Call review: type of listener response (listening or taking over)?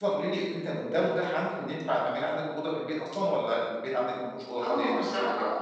taking over